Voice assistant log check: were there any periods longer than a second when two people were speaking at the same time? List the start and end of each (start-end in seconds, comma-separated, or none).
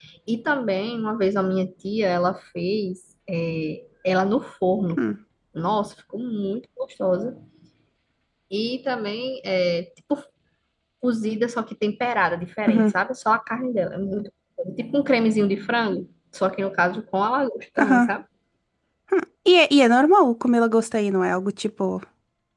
none